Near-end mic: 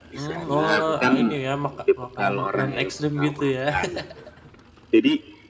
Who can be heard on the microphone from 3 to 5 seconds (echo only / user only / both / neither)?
both